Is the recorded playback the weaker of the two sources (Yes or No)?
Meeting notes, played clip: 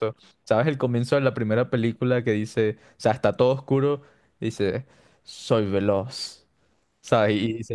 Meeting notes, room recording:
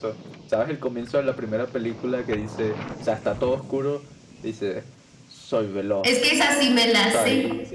Yes